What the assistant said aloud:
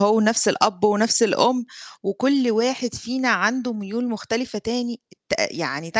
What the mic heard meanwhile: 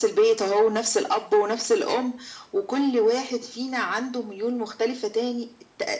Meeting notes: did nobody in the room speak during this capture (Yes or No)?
Yes